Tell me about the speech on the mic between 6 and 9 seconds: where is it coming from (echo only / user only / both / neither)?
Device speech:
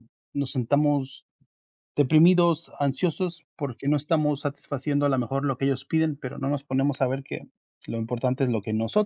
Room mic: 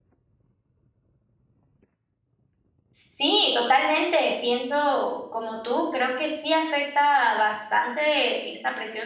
user only